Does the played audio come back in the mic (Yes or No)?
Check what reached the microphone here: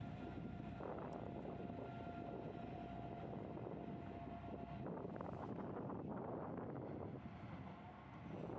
No